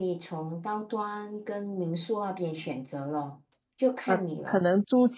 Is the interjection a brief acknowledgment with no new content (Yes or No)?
No